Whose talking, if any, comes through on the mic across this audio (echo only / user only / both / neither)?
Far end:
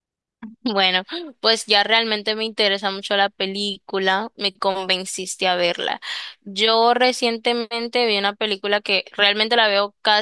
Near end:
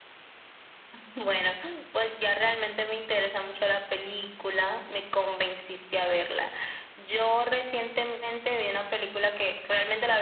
echo only